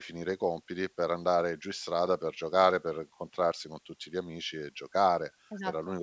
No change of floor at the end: Yes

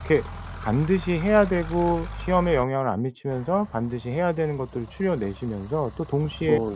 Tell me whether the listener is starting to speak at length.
No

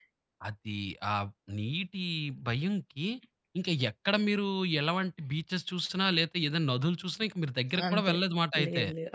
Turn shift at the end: Yes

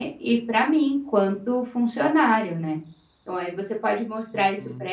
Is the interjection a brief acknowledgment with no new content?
Yes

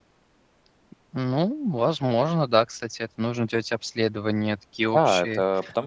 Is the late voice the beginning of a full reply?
Yes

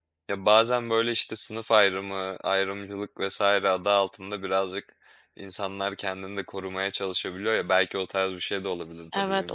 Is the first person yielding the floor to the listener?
Yes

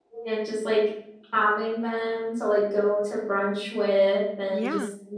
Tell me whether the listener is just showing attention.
Yes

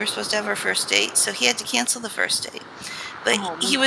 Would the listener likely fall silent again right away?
Yes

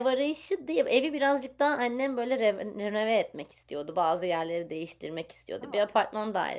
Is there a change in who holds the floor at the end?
No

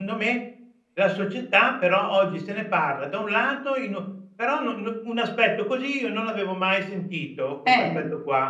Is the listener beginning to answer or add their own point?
No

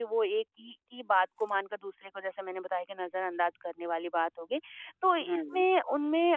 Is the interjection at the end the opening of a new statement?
No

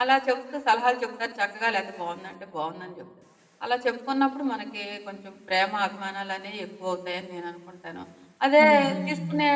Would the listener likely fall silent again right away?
Yes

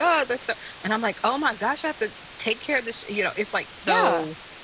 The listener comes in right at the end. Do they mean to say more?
Yes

